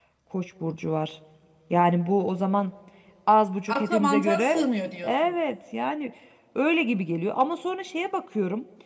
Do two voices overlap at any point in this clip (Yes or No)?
Yes